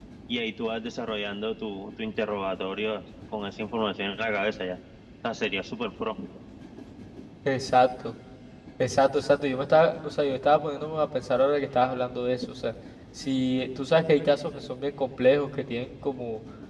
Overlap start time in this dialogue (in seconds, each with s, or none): none